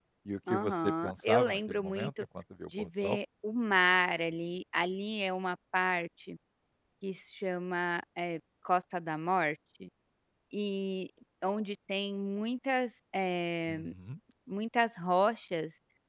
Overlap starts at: 1 s

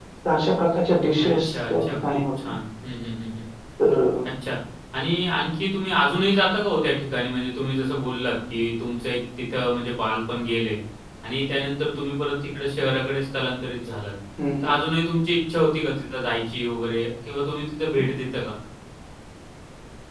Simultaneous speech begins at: 1 s

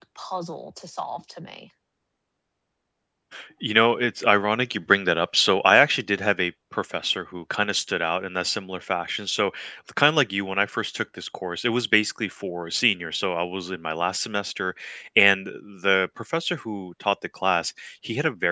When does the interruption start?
none

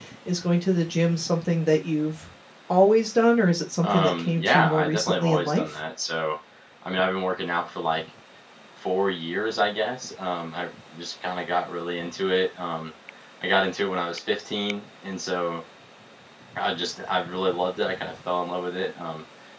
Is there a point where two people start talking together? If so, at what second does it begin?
4 s

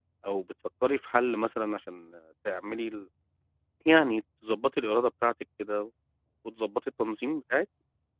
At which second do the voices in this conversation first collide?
none

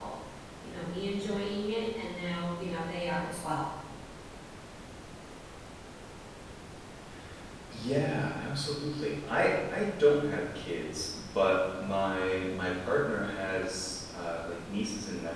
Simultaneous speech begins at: none

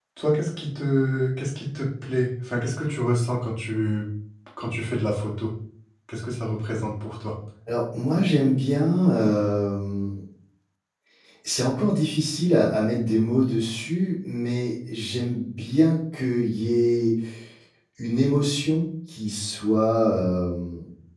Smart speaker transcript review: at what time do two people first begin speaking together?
none

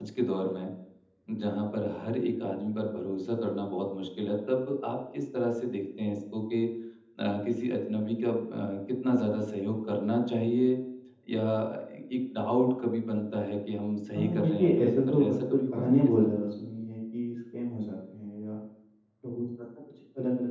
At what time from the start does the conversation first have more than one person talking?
14 s

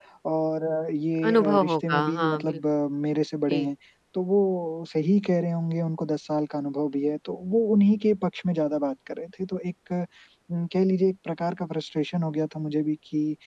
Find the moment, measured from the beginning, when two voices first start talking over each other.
1 s

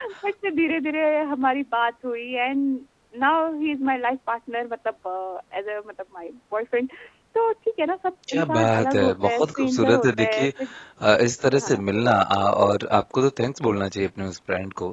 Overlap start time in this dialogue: 8 s

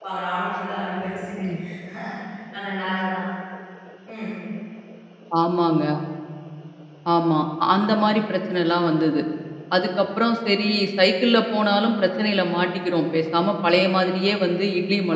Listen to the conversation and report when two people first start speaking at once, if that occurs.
none

